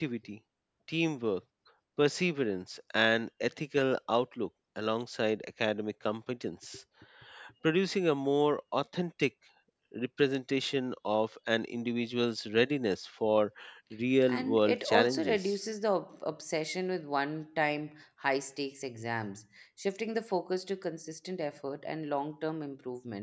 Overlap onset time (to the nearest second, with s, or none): 14 s